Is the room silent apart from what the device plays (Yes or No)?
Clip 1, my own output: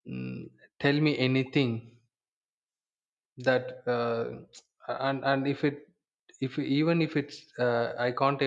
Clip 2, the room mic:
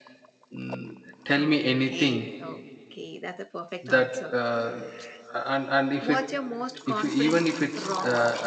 No